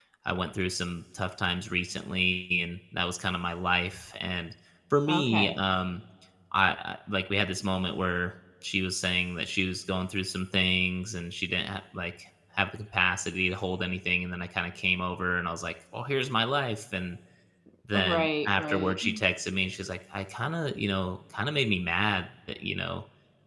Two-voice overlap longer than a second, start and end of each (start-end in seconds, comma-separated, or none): 17.9-19.2